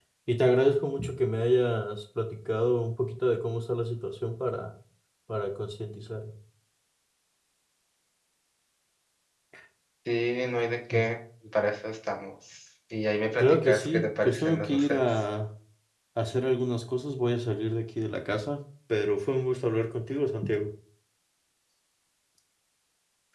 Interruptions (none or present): present